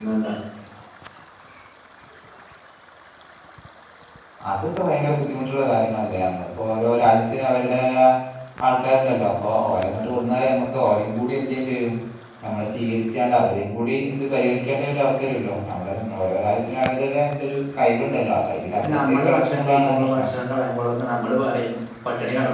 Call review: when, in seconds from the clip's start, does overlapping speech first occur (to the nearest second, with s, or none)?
19 s